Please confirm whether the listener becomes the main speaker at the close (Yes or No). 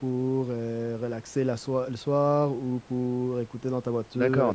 Yes